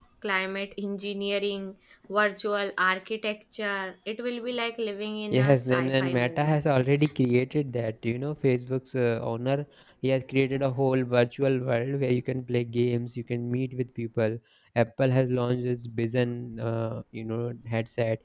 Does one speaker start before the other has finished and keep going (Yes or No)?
Yes